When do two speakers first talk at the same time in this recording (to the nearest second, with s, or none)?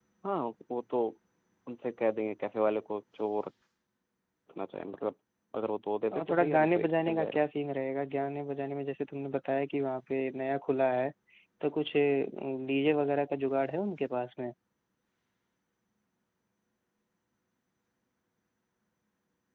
6 s